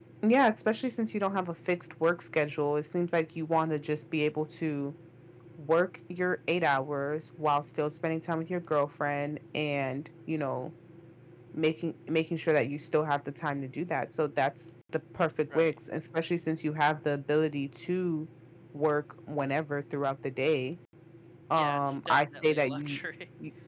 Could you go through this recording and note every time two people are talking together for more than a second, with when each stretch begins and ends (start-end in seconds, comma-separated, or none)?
21.6-23.0